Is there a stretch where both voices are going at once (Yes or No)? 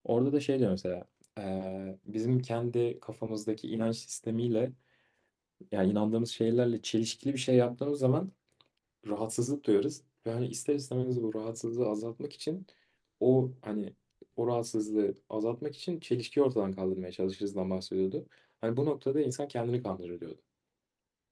No